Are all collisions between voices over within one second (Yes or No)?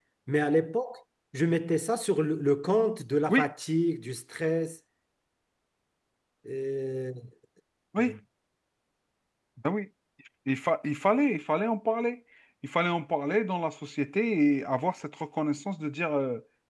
Yes